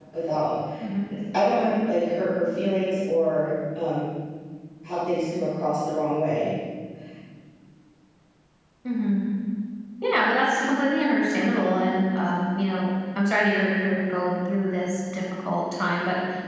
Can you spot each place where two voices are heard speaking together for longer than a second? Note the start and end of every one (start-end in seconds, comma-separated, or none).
none